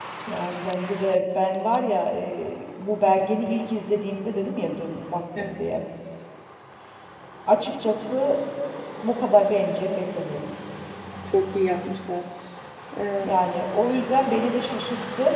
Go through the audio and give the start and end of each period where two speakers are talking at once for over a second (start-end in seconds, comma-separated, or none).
none